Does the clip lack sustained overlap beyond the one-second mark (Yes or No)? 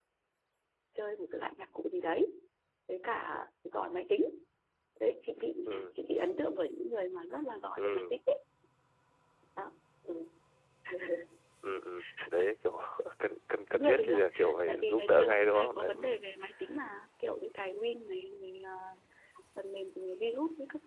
No